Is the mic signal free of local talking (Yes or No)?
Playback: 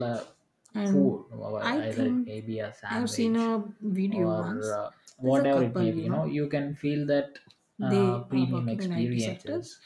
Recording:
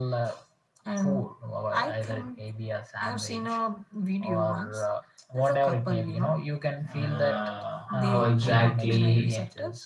No